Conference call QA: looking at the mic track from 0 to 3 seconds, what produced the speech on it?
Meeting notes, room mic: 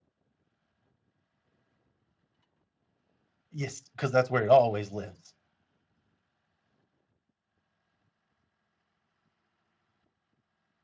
neither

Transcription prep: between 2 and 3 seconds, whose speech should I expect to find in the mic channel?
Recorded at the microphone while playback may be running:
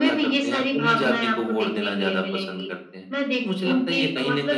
echo only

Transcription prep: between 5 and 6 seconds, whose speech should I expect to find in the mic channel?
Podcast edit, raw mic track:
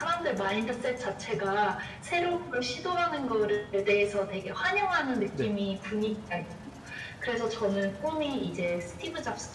both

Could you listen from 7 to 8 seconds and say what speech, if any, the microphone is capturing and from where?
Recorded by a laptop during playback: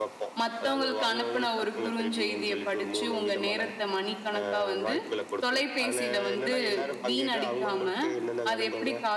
both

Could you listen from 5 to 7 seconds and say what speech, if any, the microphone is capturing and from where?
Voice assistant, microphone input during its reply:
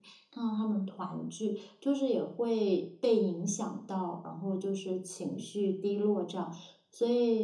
user only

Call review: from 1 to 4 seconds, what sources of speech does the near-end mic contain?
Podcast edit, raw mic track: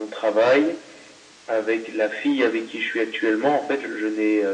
echo only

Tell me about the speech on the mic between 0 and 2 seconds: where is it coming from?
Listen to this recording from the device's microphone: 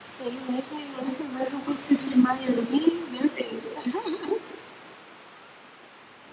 echo only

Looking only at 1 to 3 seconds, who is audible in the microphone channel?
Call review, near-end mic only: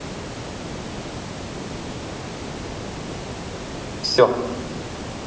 neither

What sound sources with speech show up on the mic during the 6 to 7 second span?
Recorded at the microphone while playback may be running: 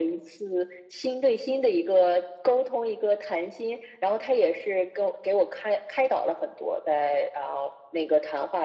echo only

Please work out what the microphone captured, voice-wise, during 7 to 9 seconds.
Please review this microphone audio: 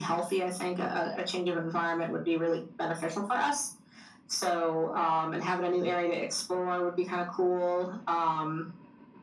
echo only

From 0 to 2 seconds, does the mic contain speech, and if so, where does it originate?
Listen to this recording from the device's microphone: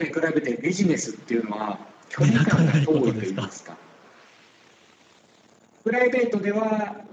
echo only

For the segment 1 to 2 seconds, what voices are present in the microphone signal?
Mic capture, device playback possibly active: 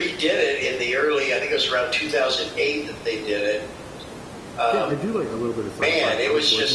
echo only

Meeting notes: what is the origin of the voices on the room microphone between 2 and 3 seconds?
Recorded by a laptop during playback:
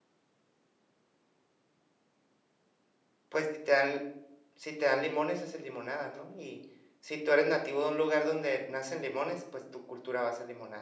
neither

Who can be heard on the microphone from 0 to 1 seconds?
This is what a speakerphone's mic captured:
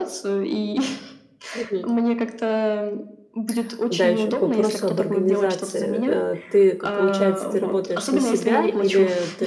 echo only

